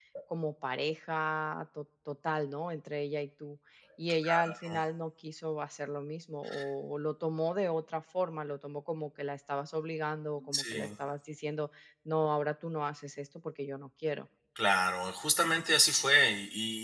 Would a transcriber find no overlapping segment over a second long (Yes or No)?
Yes